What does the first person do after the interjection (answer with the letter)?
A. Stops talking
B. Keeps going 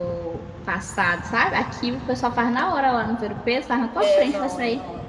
A